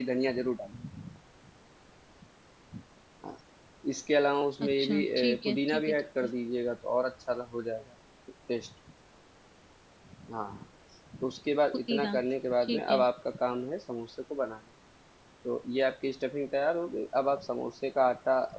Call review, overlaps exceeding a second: present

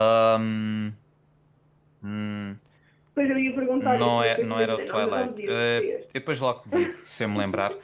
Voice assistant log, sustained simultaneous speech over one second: present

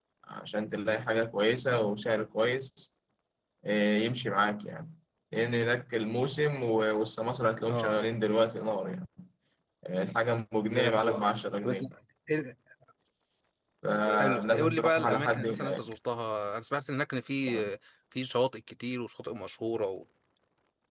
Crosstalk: present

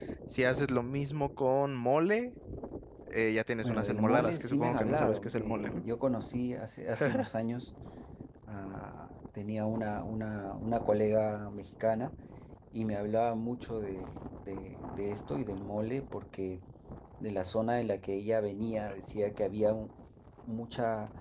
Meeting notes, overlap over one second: present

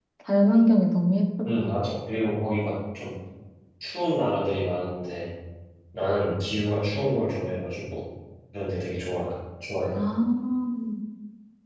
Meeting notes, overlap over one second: none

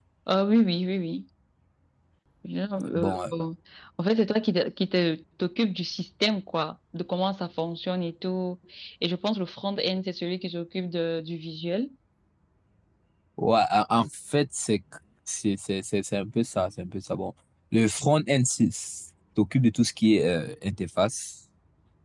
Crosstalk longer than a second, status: none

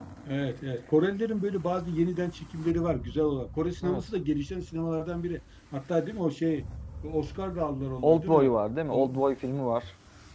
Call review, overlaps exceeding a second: none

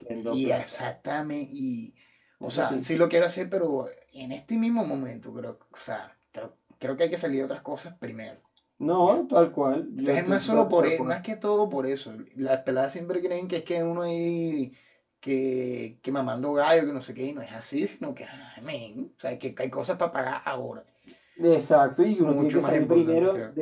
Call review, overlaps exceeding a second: present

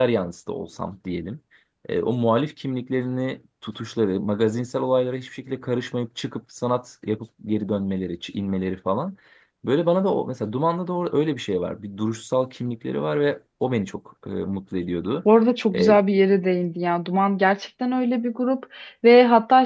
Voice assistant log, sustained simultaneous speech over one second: none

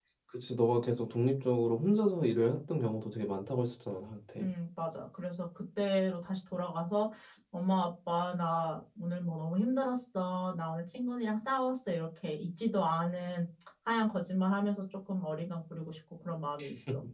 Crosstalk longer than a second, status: none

